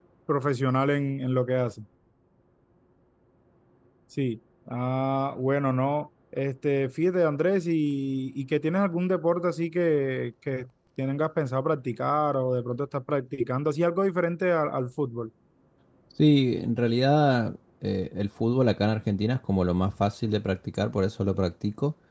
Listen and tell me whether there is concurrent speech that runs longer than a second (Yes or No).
No